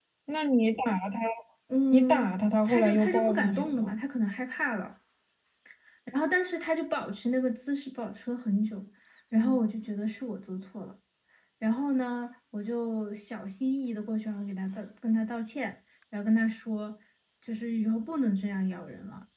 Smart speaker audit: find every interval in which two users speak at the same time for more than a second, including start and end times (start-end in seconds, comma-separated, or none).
1.9-4.0